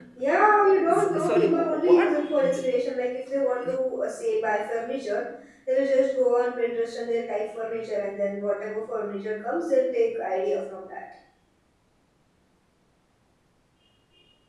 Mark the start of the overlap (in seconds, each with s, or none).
0.9 s